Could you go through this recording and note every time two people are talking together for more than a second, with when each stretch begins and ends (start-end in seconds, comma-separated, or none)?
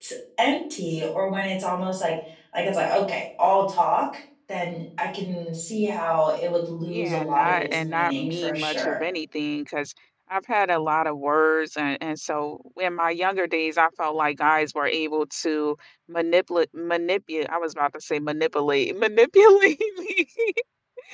6.9-9.0